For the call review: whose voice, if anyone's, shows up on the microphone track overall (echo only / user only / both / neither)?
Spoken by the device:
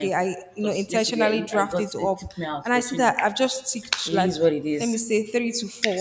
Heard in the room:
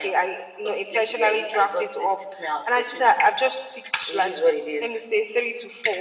echo only